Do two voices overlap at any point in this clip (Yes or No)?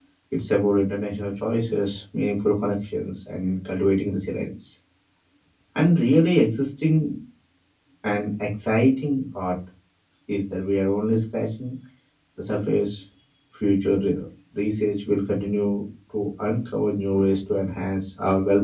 No